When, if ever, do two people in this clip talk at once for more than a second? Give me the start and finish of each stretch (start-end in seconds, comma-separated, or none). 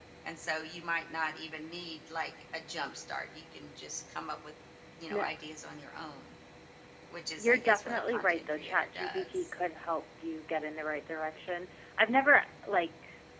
7.4-9.4